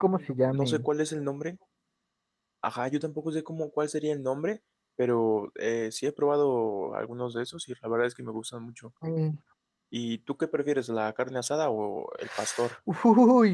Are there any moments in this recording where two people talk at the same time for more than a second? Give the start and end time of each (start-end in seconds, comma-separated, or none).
none